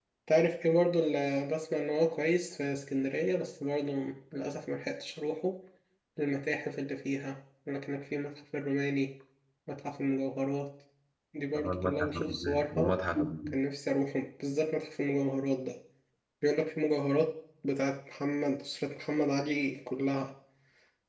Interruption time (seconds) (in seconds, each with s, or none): 11.6 s